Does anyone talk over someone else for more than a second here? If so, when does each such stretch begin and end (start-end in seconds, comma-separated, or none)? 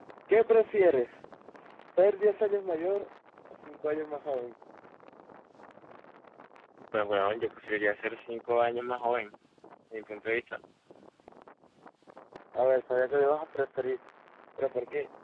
none